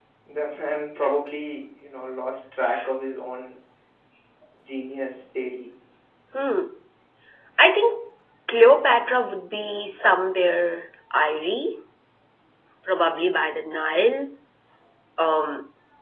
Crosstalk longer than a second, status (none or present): none